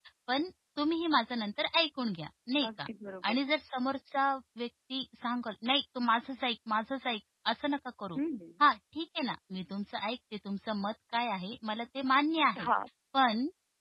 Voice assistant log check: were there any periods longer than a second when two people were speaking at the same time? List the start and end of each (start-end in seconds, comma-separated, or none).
none